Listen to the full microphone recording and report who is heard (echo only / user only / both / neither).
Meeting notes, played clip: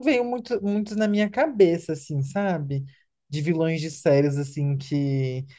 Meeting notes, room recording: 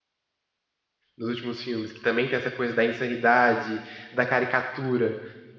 user only